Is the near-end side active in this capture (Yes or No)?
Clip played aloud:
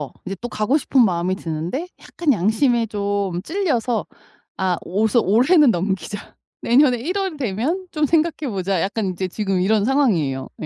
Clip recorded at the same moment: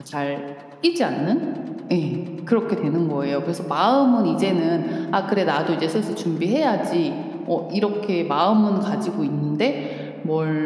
Yes